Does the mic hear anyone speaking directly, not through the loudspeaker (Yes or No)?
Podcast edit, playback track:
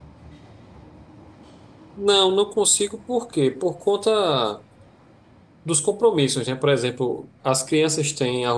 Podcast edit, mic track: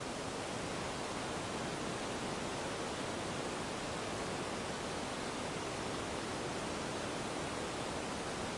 No